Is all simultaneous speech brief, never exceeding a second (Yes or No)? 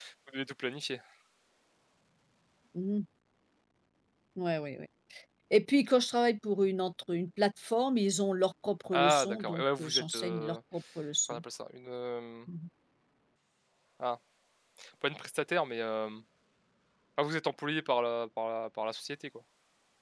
No